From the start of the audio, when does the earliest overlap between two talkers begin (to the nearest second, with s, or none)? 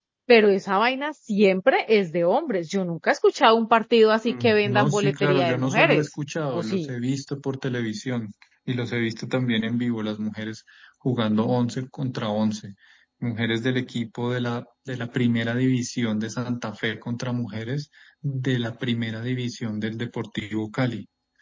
4 s